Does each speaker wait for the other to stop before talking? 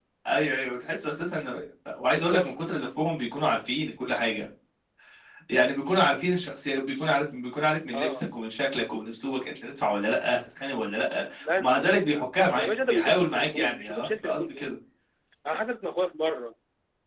No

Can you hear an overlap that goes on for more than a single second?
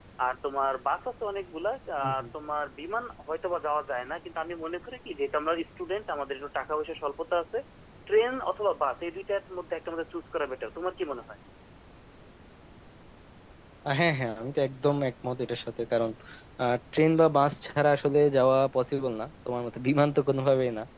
No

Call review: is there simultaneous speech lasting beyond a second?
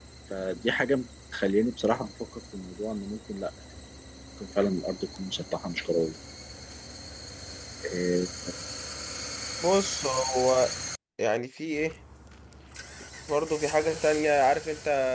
No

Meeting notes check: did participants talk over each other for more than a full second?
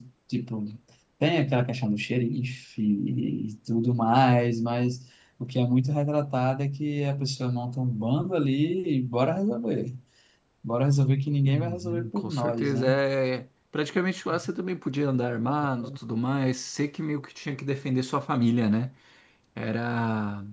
Yes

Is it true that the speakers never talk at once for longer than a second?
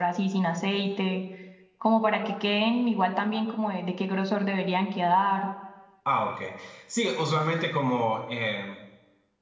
Yes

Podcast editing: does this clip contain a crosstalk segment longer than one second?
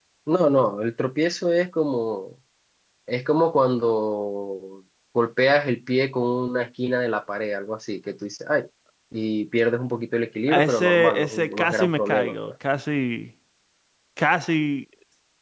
Yes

